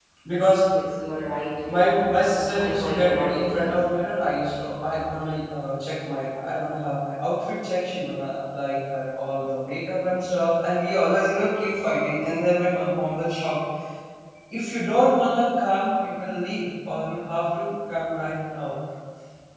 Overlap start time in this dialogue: 2.5 s

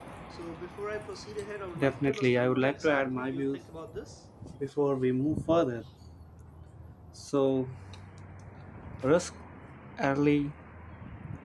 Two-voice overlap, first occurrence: 1.8 s

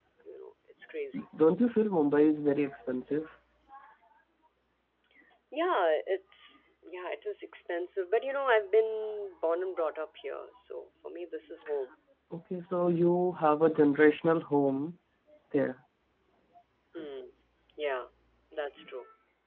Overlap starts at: none

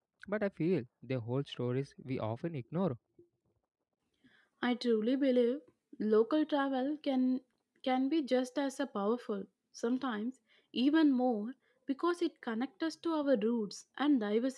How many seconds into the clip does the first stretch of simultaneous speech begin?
none

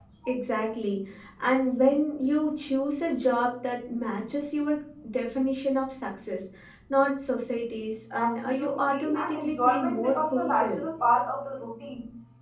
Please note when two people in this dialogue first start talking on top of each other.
8.2 s

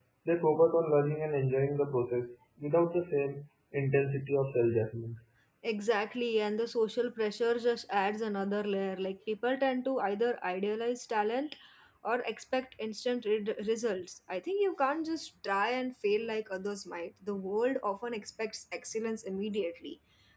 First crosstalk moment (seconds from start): none

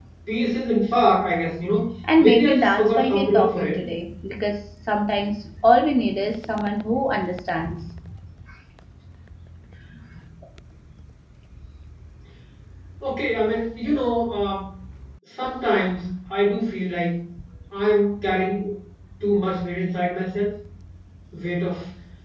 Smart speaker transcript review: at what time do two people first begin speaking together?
2.0 s

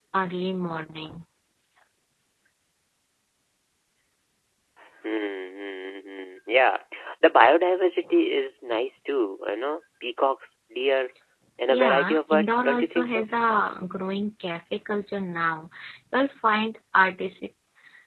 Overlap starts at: 11.7 s

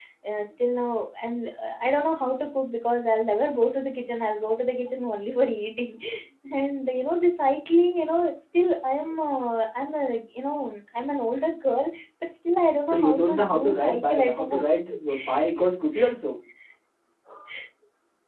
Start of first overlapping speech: 12.9 s

